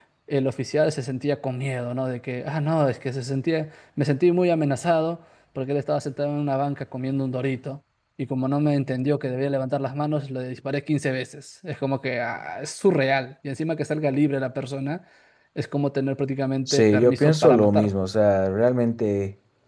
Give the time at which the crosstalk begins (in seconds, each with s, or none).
16.7 s